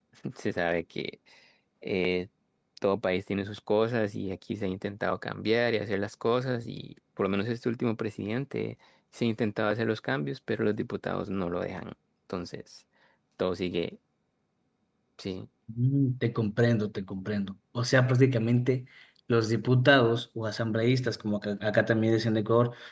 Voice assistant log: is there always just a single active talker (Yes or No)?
Yes